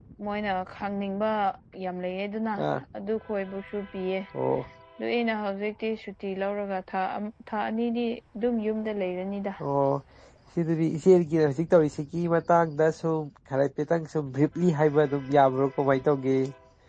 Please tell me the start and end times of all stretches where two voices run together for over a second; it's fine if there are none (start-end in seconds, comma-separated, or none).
none